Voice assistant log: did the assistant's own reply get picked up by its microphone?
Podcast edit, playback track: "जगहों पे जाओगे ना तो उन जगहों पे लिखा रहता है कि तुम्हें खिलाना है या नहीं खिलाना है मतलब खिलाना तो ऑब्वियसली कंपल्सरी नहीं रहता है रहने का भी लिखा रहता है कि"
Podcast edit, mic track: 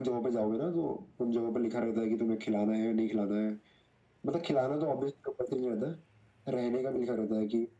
Yes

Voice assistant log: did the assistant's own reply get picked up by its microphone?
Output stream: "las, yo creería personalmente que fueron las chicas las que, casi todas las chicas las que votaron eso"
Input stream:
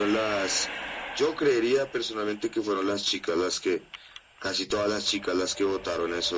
Yes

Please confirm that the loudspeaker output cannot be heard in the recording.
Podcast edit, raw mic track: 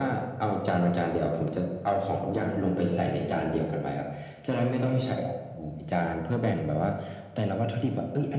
No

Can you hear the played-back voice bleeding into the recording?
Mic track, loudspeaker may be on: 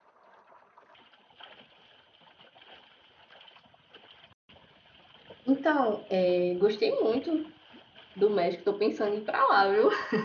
No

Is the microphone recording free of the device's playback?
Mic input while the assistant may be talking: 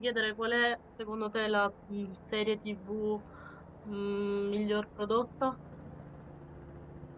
Yes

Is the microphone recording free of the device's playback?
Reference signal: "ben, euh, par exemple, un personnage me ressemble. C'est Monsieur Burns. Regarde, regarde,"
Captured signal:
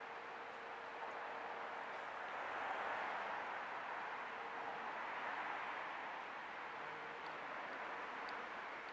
Yes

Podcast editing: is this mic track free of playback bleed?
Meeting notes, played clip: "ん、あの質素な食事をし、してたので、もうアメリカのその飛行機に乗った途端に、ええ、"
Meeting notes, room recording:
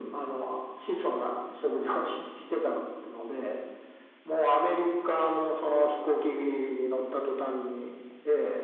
No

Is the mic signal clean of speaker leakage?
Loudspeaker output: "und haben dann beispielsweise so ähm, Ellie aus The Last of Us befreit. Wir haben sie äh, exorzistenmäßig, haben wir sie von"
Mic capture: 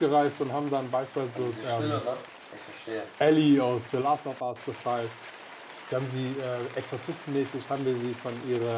No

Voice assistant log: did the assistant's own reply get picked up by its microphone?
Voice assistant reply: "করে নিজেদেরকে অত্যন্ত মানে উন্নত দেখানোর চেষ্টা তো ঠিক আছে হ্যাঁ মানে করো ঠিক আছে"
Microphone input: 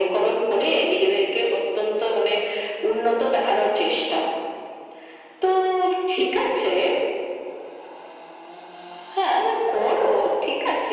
Yes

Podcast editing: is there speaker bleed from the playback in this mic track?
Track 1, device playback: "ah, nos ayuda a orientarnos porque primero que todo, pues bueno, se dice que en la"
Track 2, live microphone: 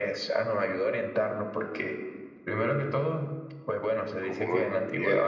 Yes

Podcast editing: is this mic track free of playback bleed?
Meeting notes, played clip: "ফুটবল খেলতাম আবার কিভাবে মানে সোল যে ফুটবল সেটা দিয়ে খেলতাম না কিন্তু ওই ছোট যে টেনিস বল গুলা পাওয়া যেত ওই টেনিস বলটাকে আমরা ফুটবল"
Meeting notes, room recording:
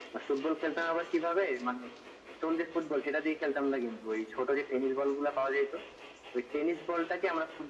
No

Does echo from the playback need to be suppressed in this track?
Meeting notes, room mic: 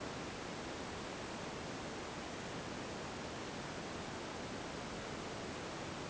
No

